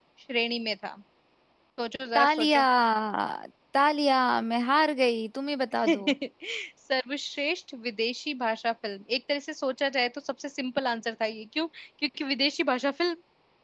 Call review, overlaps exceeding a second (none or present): none